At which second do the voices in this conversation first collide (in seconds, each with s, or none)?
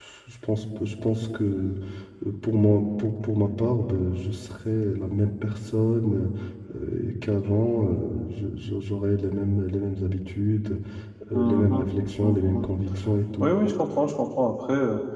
11.3 s